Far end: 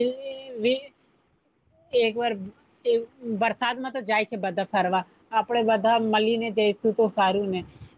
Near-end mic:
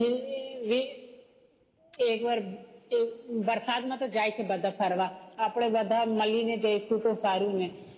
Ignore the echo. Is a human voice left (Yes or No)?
No